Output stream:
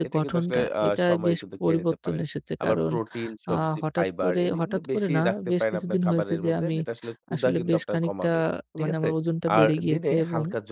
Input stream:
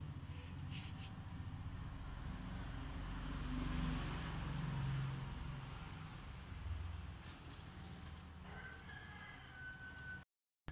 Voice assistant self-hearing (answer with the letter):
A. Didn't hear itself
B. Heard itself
A